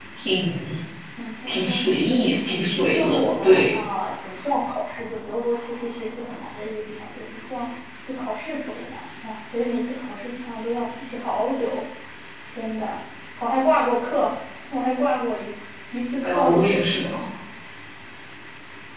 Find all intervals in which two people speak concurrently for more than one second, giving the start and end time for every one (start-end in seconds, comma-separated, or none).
1.5-3.8